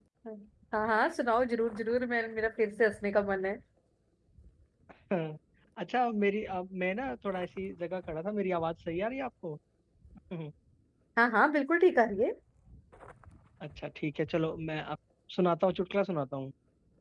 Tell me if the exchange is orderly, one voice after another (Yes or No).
Yes